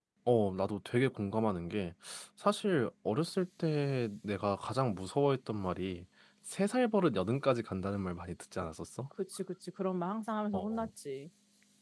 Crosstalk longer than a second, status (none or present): none